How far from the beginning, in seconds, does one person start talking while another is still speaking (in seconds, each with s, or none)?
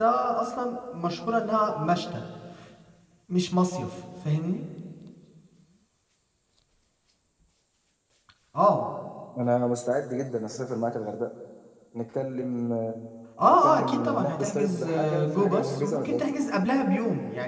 13.5 s